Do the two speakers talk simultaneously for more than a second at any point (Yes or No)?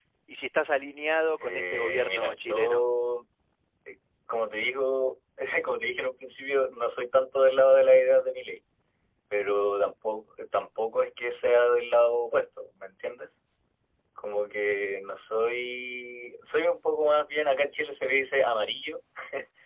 Yes